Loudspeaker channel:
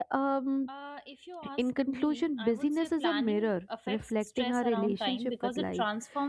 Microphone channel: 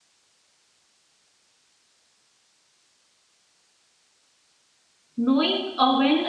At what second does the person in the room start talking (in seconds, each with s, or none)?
5.2 s